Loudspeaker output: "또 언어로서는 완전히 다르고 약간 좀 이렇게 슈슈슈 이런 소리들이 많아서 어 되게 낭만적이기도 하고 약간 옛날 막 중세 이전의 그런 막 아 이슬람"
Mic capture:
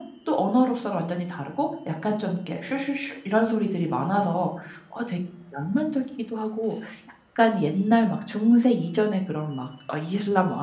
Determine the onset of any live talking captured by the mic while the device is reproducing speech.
none

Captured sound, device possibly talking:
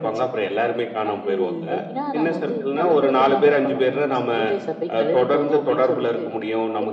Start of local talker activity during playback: none

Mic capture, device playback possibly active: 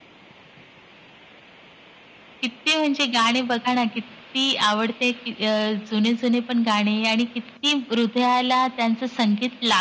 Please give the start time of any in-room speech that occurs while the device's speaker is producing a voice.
none

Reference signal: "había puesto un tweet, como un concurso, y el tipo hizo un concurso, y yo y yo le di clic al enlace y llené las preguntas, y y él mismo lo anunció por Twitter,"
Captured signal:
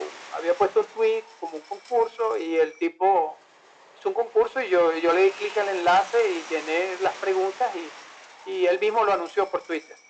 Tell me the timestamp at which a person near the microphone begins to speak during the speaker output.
none

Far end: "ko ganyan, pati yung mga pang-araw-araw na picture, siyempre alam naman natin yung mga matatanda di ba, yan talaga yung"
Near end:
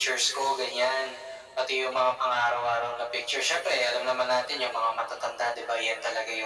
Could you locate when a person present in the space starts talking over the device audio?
none

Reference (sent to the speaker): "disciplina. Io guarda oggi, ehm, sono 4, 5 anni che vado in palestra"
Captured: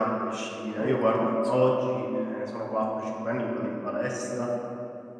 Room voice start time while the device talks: 0.8 s

